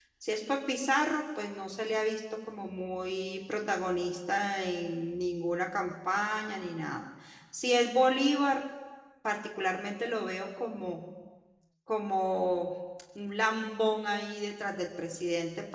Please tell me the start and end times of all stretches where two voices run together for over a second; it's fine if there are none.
none

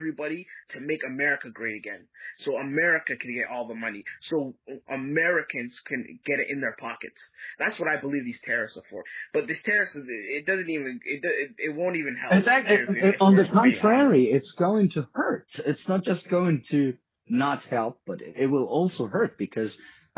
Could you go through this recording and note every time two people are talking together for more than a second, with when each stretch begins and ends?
12.3-14.2

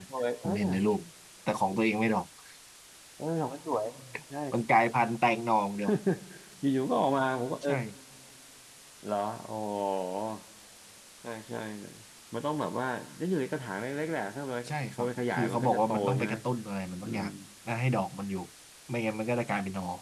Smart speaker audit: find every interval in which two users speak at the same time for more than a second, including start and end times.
15.0-16.3

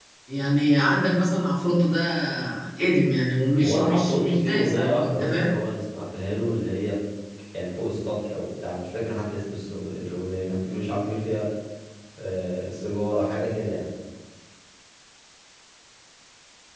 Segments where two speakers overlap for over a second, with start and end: 3.6-5.6

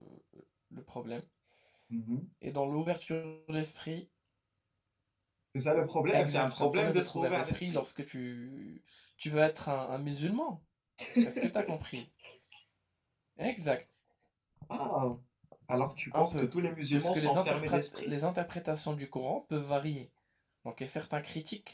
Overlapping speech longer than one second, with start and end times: 6.1-7.8, 16.9-18.1

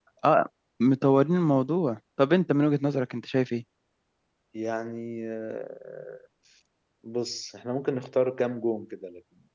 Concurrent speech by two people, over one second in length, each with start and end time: none

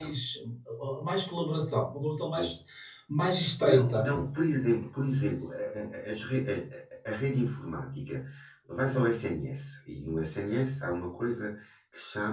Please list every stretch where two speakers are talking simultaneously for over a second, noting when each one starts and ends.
none

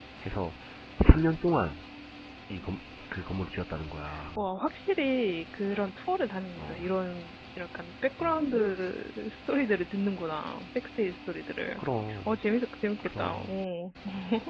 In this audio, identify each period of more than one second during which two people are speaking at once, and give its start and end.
none

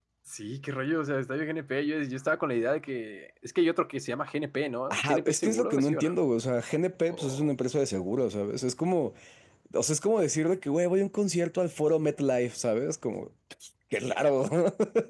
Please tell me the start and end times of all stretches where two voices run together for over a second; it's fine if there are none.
4.9-6.1

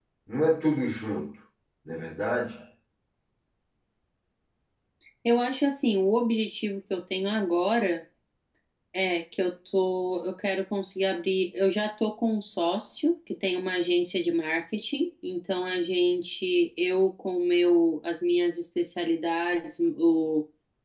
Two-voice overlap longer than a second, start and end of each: none

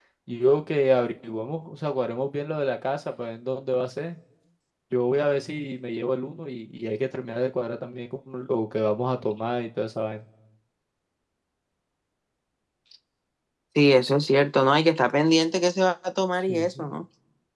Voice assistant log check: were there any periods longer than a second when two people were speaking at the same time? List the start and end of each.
none

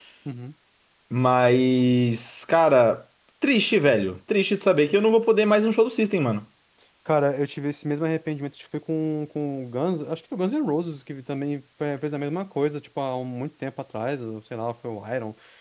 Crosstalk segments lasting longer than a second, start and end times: none

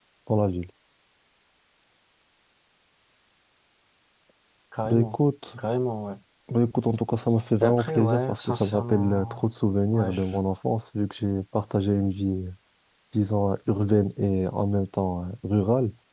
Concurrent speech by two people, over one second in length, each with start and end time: 7.6-9.4

